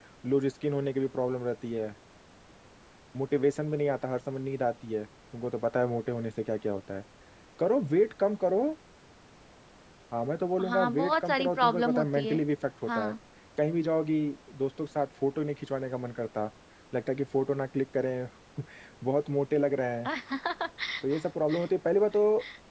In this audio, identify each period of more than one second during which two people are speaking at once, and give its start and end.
10.7-12.4

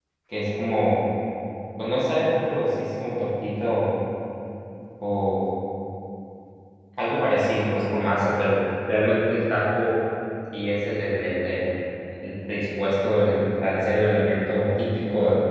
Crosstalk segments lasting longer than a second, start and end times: none

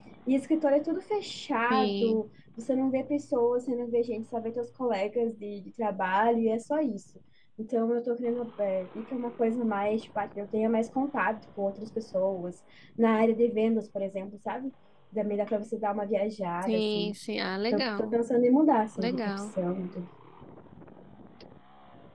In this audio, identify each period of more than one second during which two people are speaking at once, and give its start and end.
none

